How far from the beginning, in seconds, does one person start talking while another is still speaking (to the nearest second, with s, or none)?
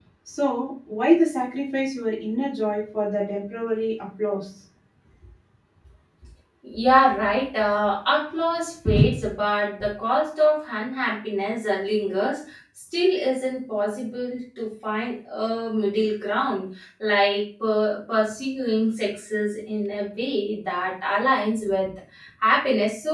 none